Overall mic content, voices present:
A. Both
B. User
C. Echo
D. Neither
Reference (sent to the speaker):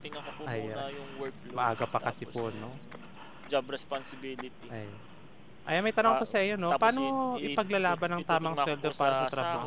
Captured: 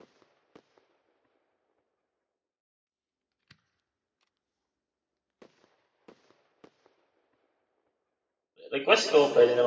B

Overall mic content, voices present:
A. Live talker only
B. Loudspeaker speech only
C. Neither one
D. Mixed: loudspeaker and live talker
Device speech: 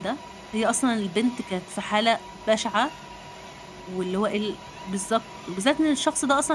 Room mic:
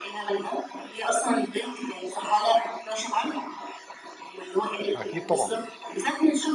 D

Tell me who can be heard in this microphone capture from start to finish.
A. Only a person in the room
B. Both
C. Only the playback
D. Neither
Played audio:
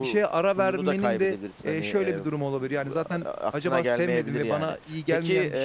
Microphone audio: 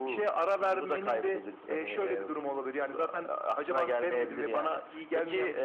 C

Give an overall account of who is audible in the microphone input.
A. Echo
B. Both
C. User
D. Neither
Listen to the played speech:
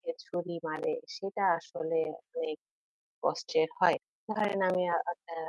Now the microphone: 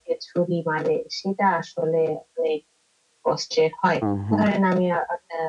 B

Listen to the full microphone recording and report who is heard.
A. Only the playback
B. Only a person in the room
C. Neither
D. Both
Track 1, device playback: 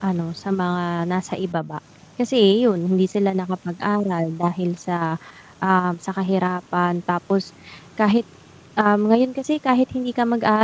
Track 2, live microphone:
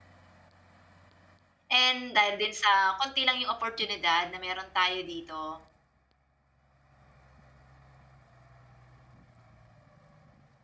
B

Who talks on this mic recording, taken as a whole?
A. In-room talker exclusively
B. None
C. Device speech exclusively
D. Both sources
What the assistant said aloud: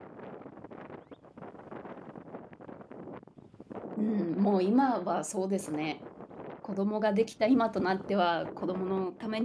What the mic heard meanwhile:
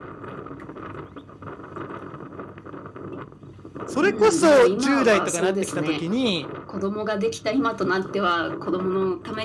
D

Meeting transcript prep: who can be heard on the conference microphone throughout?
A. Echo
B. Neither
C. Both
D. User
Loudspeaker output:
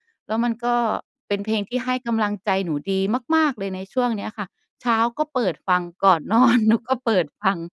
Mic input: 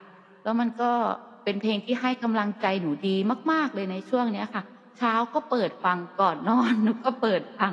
A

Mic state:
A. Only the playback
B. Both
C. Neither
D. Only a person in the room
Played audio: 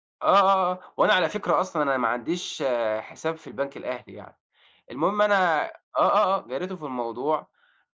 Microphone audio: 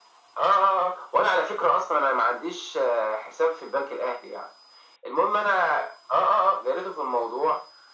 A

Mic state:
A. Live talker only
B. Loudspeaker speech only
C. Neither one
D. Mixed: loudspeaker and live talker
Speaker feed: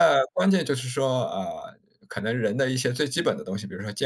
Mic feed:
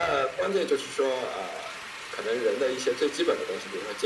B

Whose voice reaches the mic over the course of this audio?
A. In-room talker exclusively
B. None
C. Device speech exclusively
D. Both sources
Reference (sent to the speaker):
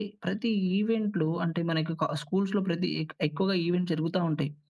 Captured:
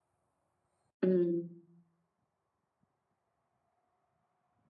A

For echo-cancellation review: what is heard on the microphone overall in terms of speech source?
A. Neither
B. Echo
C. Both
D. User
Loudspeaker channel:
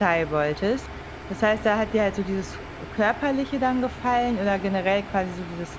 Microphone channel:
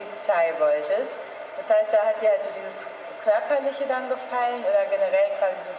B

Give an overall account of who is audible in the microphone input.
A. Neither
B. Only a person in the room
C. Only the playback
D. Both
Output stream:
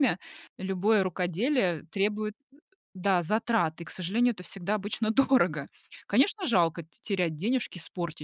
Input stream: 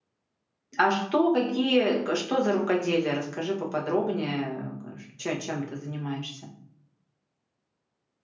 B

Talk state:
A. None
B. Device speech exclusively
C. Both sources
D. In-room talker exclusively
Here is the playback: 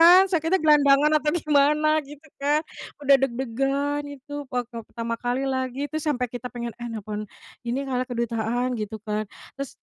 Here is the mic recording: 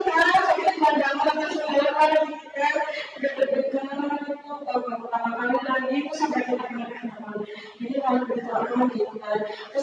B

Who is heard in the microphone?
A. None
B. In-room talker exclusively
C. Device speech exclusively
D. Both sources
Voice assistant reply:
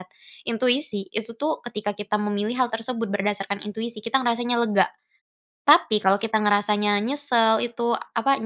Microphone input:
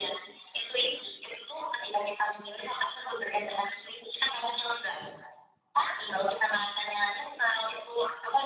C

